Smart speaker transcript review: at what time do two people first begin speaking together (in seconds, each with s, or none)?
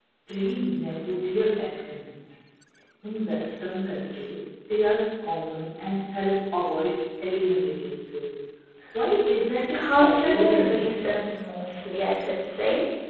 9.7 s